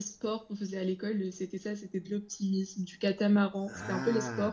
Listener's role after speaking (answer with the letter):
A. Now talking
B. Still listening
B